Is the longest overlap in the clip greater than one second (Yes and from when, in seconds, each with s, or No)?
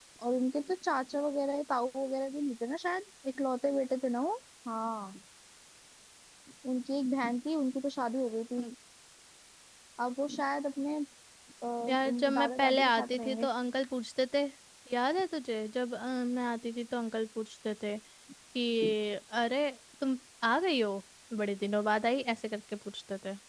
Yes, from 11.9 s